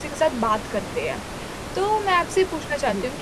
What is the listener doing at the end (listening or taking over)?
listening